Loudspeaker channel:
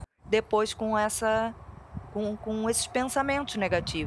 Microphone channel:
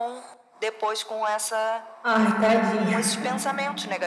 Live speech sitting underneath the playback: No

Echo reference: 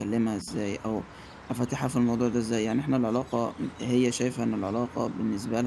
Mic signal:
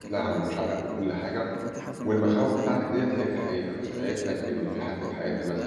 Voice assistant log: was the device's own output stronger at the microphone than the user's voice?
No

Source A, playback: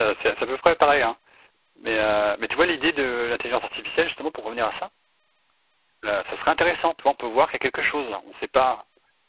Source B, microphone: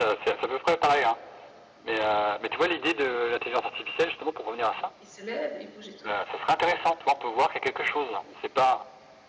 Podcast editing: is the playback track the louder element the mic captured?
Yes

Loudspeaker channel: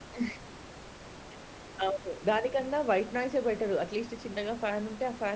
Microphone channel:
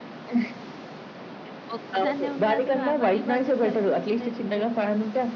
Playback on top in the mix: Yes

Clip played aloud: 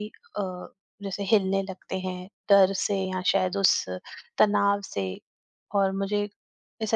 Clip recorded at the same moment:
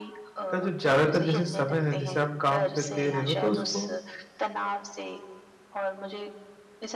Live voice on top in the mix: Yes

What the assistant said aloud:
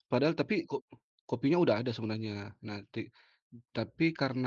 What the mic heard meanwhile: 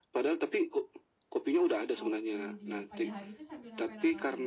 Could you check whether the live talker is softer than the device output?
Yes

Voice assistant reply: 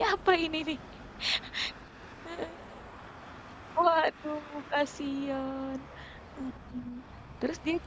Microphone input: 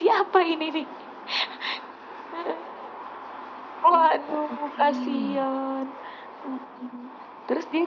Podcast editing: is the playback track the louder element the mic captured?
Yes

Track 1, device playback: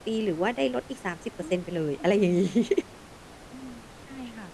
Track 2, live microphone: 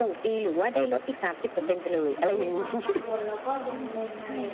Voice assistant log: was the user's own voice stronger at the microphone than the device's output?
No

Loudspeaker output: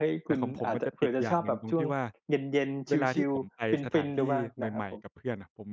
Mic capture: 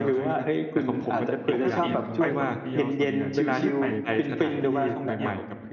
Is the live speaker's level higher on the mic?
No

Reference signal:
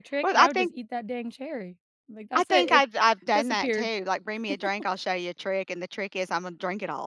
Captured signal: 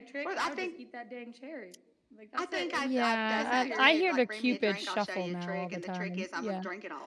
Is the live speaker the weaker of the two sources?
No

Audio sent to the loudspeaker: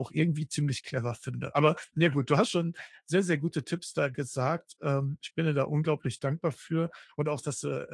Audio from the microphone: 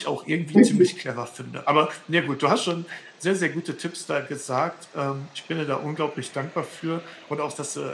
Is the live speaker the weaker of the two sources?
No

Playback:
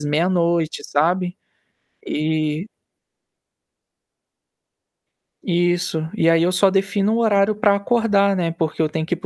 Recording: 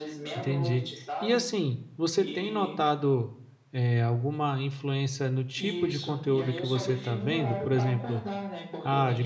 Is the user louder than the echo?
Yes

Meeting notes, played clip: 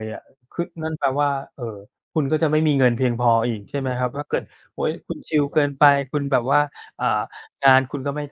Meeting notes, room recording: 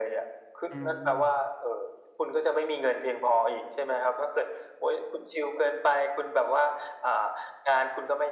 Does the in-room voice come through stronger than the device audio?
No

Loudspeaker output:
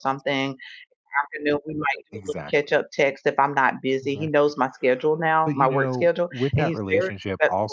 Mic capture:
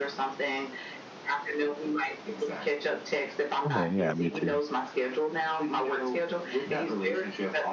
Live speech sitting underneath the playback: No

